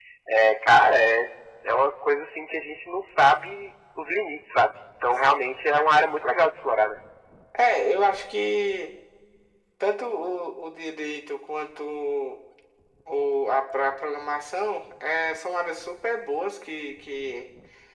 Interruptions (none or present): none